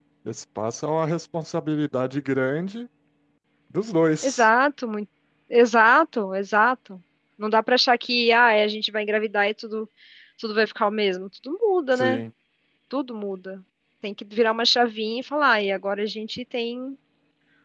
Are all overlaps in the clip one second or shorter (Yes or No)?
Yes